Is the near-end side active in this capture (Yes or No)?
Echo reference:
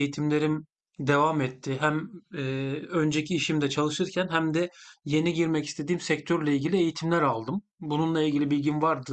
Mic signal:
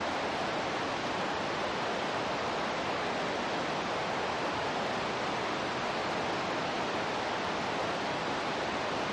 No